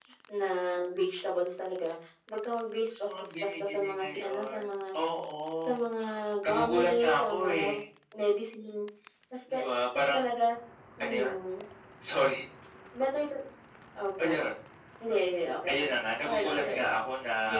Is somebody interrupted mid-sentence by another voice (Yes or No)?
Yes